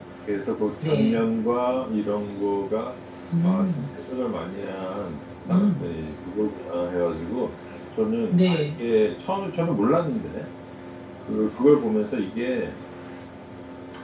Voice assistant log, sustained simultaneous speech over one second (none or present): none